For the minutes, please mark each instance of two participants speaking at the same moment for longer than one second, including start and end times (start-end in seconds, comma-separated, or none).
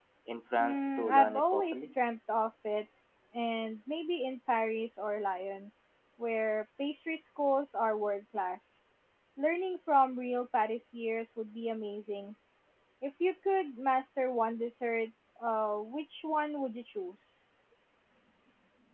0.6-1.9